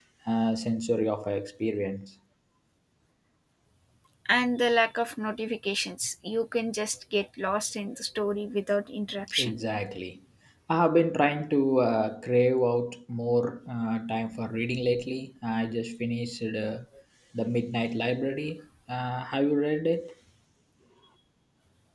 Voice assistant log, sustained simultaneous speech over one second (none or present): none